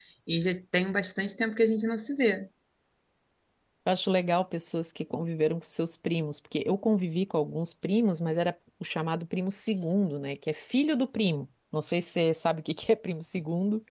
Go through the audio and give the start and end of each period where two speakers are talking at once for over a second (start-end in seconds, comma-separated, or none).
none